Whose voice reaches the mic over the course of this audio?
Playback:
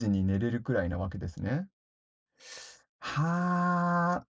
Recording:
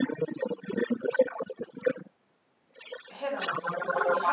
both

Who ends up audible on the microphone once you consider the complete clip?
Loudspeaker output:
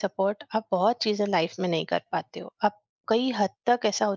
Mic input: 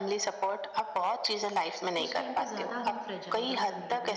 both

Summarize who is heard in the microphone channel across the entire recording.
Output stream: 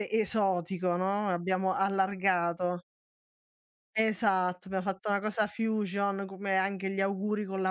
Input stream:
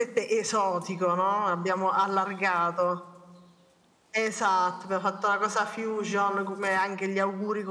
echo only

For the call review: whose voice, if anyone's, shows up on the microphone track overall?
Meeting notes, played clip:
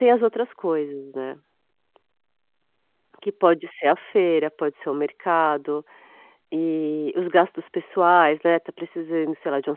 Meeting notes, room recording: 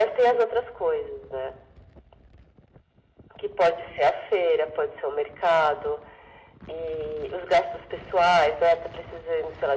echo only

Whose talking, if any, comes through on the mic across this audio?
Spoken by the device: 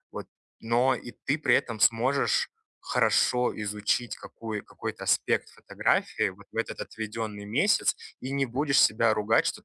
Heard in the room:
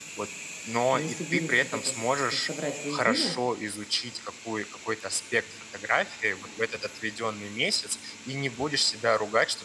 both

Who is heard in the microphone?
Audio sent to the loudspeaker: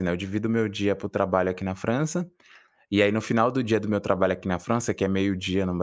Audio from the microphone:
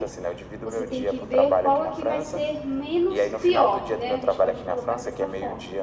both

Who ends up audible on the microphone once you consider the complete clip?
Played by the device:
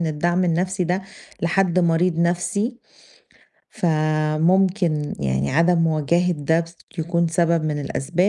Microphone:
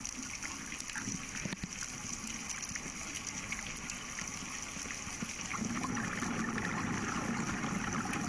neither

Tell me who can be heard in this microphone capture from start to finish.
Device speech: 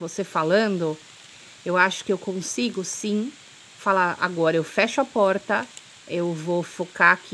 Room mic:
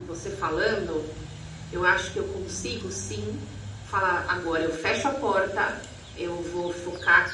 echo only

